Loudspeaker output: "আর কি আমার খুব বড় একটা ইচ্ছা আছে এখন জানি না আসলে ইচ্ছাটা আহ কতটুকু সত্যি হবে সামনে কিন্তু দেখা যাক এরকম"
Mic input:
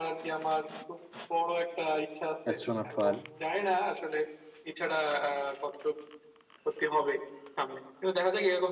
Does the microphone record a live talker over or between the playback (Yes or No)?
Yes